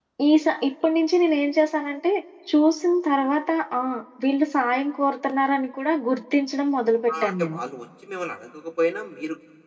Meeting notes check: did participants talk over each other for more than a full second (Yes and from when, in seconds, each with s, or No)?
No